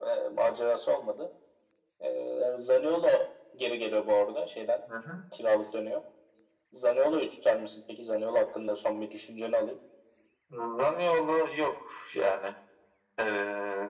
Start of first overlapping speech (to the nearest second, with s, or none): none